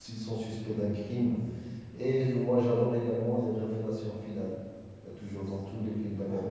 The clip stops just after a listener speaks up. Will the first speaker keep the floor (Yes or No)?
Yes